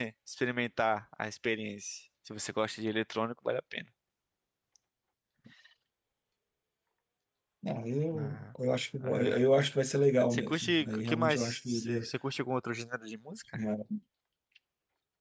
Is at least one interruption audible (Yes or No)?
Yes